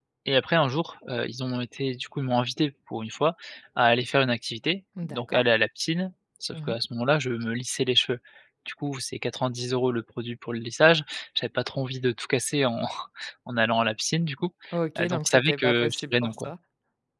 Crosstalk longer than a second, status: present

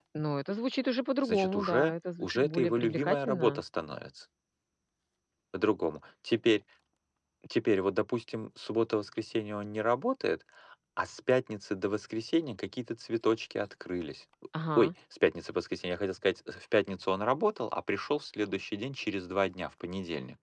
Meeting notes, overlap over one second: present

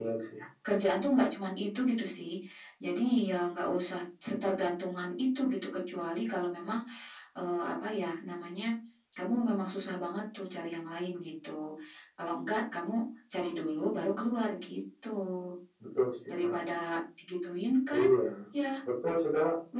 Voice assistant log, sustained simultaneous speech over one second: none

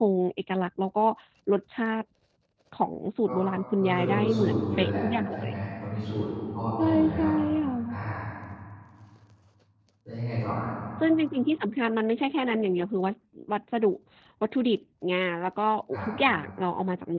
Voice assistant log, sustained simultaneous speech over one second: present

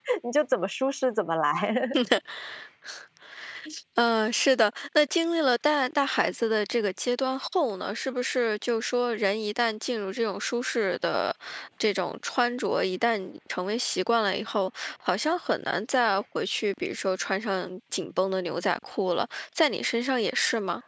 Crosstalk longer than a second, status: none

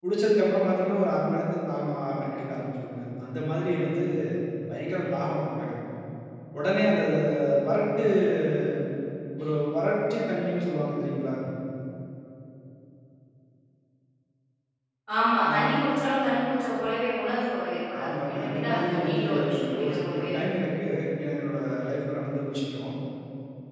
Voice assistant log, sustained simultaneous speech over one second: present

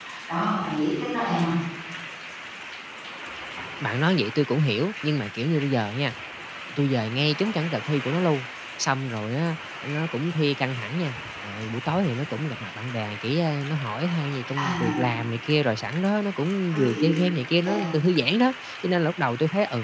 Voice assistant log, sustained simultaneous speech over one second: none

